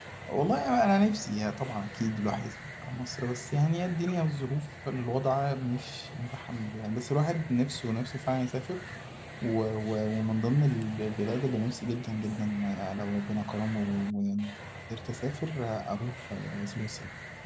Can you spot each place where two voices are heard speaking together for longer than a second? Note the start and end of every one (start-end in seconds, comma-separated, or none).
none